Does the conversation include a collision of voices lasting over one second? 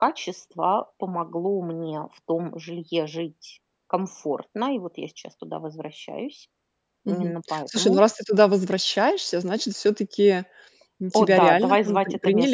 Yes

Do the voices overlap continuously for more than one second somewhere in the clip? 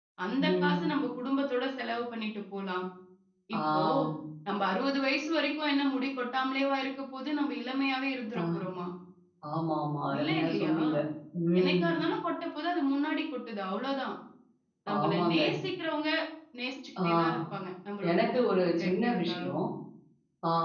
Yes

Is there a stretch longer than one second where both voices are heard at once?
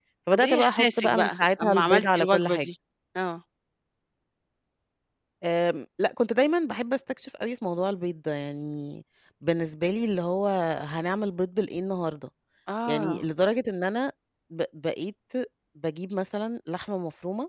Yes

